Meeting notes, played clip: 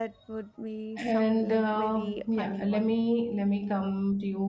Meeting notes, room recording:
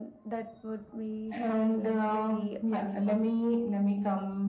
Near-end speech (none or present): none